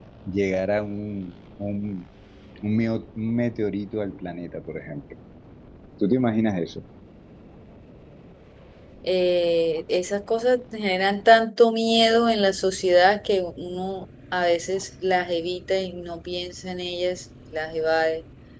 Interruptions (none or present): none